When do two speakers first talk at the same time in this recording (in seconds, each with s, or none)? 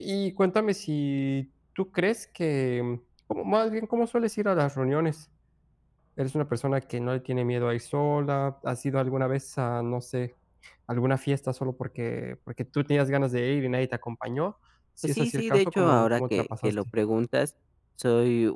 15.0 s